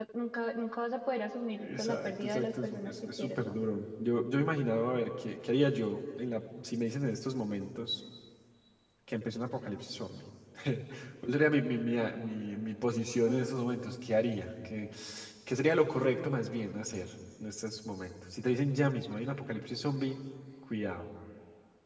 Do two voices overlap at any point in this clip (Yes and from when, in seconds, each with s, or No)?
Yes, from 1.6 s